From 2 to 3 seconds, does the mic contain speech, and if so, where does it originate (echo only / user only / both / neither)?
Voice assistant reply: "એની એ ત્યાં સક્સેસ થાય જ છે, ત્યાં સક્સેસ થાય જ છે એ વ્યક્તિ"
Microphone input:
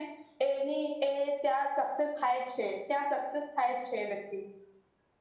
echo only